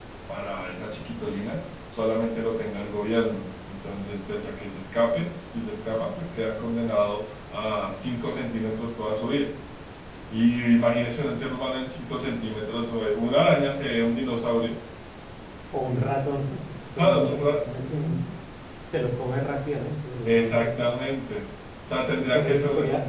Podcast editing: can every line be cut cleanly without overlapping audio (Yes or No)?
No